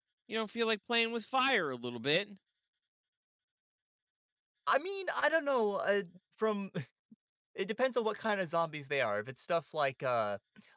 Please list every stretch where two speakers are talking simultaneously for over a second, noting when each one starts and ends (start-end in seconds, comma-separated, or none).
none